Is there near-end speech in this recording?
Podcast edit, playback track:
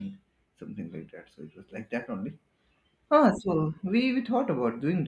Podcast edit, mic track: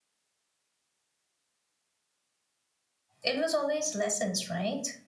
Yes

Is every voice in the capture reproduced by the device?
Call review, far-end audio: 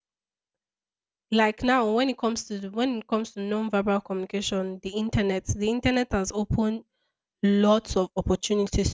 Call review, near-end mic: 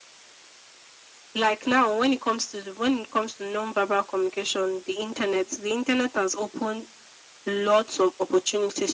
Yes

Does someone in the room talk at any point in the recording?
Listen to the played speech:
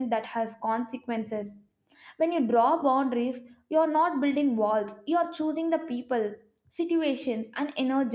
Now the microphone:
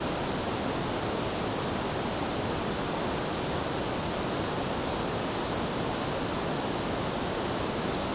No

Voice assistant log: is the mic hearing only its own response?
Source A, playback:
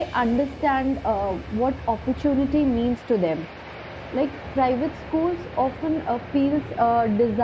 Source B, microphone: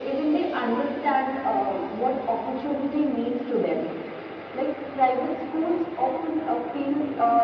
Yes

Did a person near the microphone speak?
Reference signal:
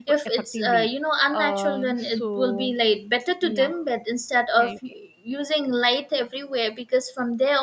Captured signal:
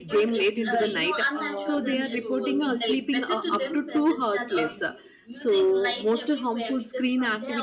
Yes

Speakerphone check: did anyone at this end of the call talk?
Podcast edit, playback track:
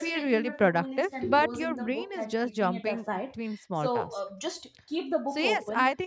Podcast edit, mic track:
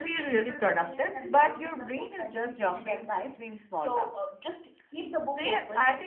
No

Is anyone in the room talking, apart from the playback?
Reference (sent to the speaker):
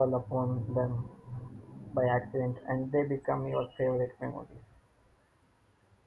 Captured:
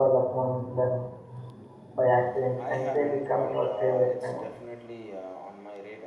Yes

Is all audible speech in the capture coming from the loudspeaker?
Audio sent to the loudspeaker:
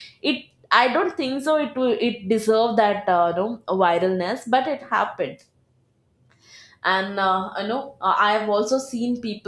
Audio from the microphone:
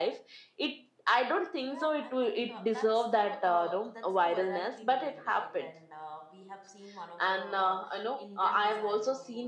No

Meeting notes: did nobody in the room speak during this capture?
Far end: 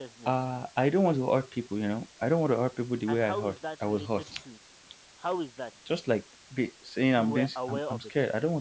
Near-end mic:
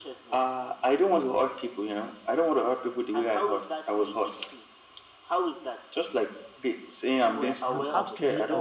No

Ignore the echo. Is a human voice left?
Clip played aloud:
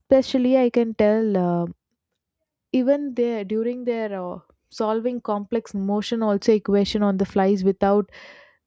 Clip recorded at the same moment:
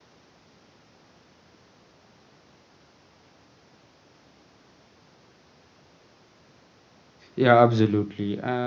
Yes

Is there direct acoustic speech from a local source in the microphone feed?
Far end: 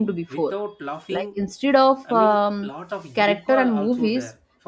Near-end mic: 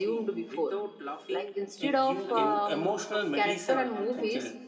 Yes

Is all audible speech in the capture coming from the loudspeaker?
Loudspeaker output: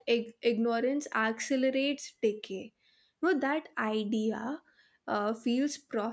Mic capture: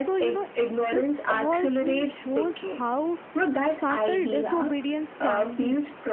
No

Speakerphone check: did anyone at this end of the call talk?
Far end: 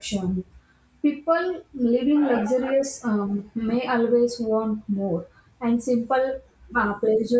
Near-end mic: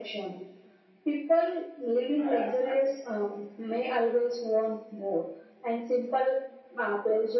No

